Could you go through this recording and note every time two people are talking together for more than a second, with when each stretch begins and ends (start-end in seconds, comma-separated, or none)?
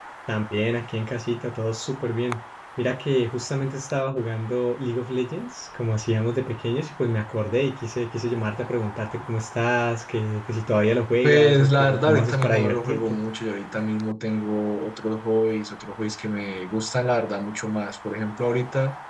11.2-13.2